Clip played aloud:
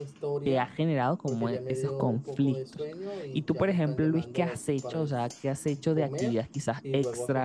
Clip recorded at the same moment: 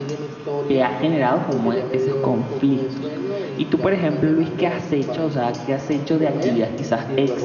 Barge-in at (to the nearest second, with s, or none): none